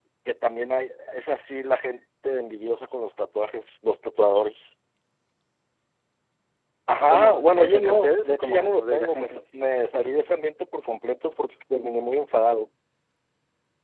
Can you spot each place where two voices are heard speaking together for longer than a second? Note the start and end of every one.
7.1-9.4

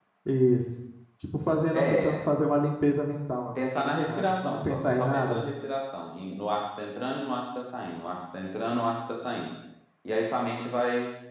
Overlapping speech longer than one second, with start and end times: 3.7-5.4

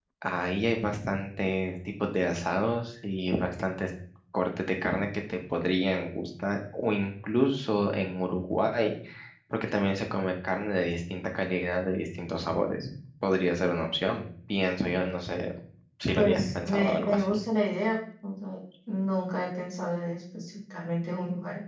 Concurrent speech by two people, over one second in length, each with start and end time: 16.1-17.4

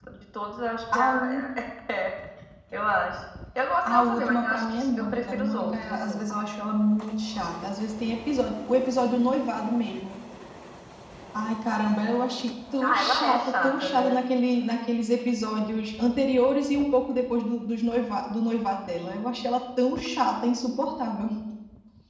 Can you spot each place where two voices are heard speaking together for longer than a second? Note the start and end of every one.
3.9-6.2, 12.8-14.2

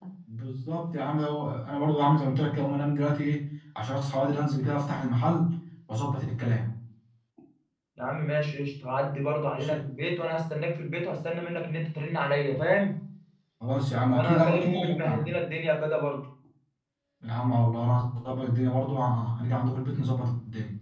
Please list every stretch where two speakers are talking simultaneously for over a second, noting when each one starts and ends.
14.1-15.3

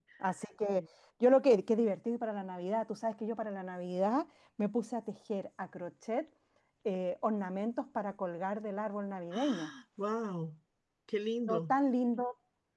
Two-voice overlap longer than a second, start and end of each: none

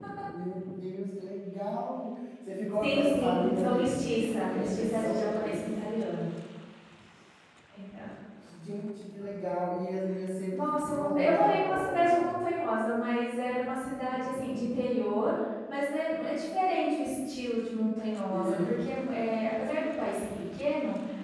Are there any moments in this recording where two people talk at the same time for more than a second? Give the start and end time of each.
2.8-5.8, 10.5-12.4

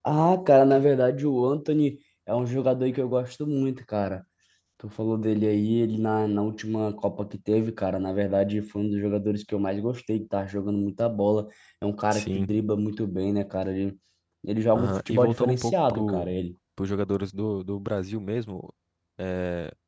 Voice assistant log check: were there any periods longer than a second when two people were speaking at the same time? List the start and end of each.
14.7-16.3

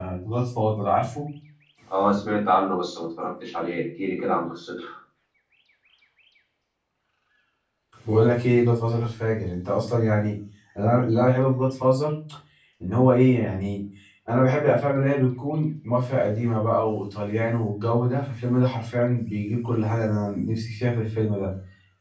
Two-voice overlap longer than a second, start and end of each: none

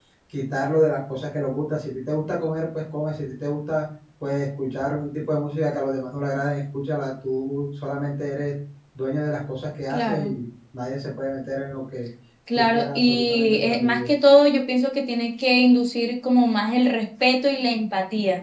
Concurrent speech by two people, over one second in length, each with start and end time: 12.6-14.1

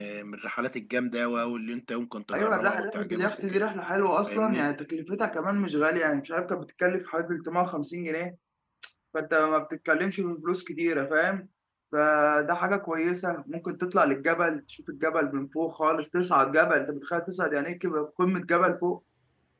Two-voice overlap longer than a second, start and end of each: 2.3-3.6

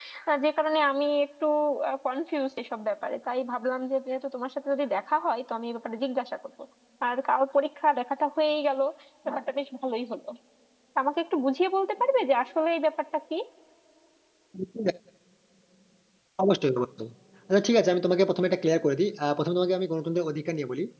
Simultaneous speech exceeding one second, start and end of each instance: none

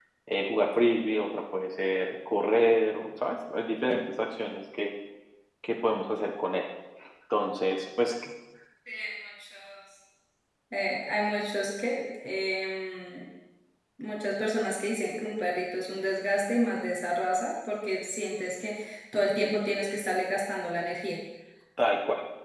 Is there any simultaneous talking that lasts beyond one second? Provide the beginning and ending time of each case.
none

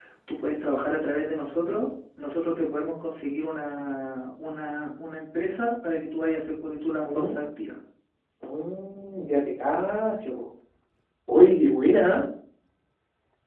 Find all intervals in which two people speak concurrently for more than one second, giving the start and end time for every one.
none

